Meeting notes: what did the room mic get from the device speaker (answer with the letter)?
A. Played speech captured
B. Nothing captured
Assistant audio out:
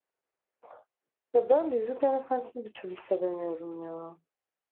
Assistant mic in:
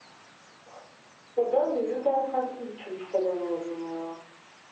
A